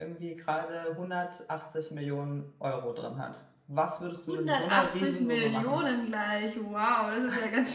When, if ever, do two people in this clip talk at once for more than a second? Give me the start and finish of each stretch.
4.3-5.8

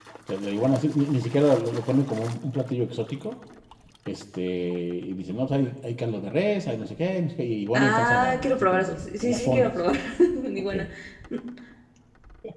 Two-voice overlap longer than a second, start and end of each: 7.7-9.7

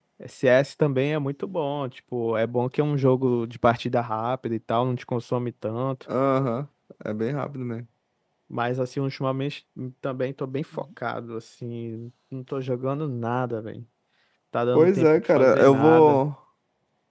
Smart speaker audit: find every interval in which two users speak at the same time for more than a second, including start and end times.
14.7-16.2

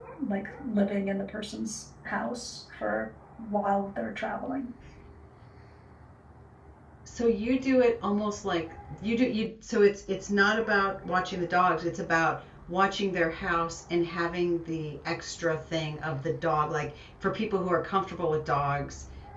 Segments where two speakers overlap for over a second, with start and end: none

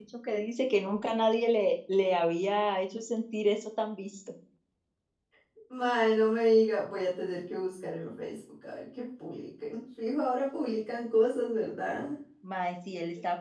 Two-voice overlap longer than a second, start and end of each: none

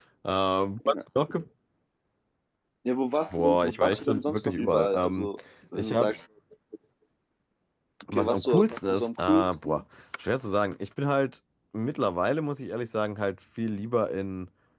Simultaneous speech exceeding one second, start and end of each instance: 3.3-5.3, 8.1-9.8

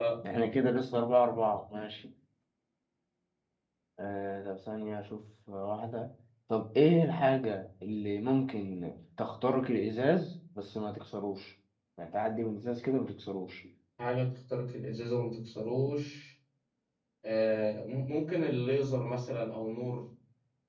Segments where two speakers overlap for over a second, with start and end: none

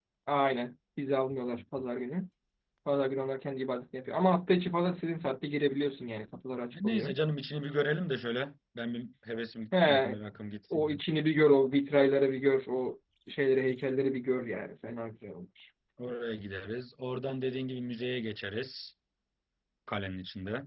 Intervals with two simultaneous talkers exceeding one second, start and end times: none

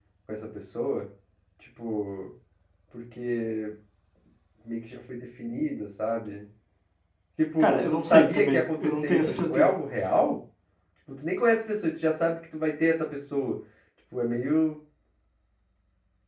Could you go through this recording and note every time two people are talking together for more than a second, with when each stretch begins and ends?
7.6-9.8

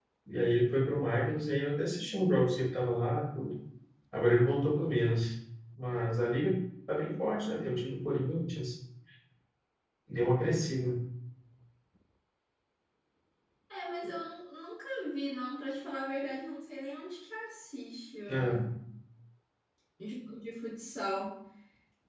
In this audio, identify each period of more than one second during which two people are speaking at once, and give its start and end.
none

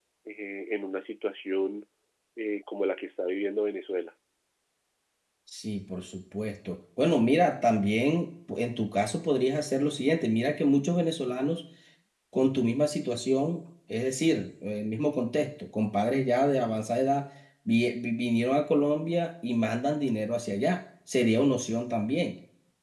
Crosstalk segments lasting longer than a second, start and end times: none

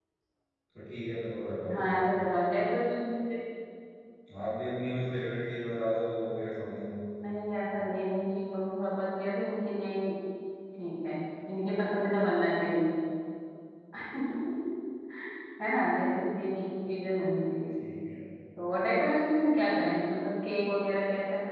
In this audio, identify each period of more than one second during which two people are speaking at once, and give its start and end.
none

